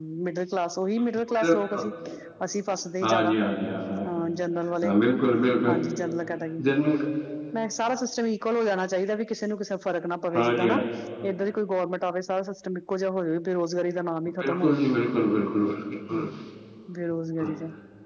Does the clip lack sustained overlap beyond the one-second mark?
Yes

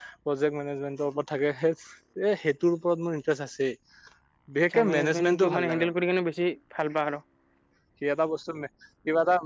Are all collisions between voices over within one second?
No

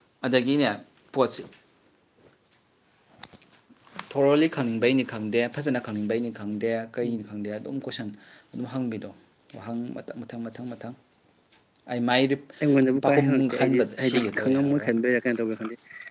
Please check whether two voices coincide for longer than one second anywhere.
Yes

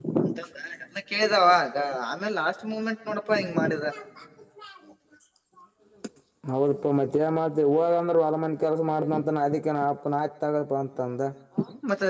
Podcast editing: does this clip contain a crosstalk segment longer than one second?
No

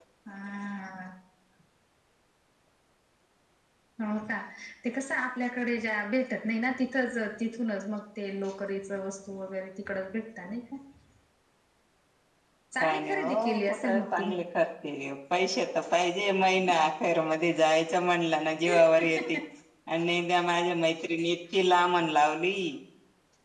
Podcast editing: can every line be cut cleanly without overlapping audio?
No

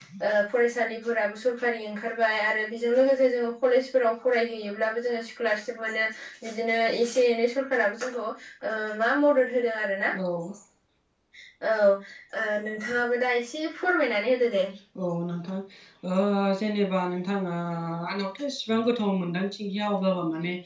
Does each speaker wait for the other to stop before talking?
Yes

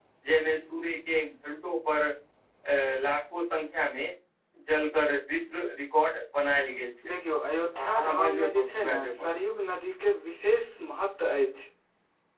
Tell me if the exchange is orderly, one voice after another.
No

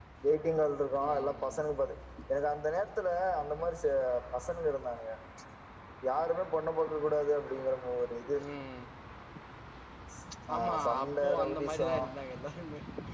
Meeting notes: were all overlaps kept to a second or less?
No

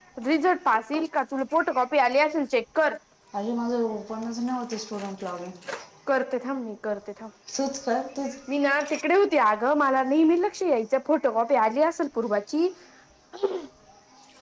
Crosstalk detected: No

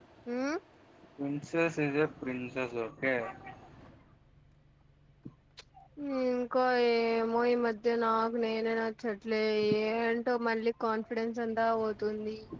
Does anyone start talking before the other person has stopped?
No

